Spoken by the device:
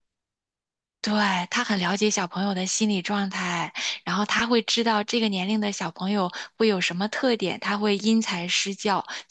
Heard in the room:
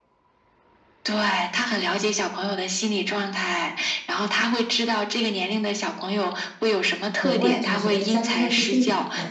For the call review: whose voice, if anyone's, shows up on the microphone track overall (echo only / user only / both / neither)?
both